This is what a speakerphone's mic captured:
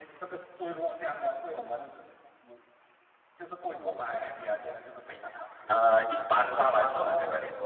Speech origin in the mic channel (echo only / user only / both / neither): both